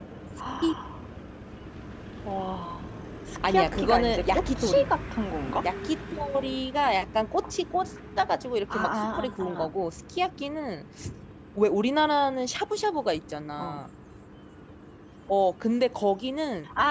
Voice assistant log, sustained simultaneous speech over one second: present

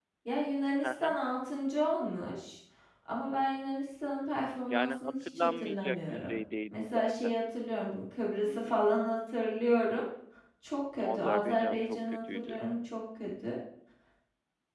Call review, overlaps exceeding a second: present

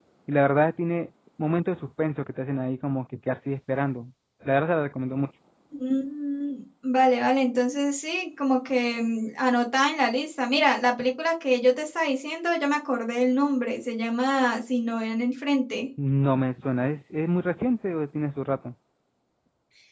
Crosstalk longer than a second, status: none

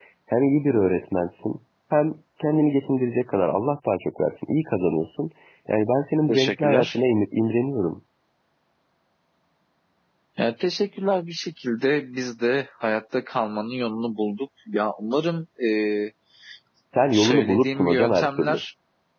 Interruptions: present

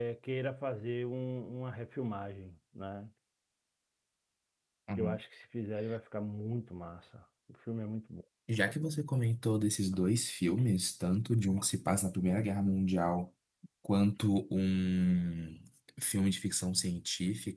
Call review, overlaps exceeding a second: none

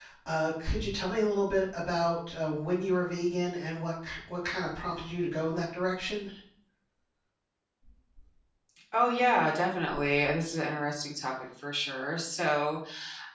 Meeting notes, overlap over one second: none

